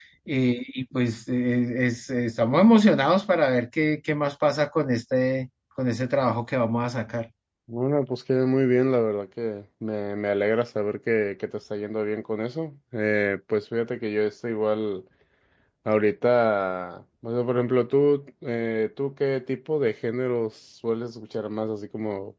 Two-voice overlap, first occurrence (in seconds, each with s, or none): none